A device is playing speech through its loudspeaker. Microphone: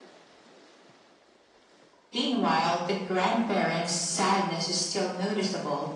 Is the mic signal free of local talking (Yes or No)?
Yes